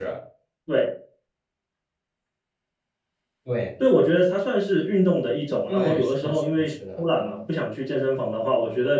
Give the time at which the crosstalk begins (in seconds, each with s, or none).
5.7 s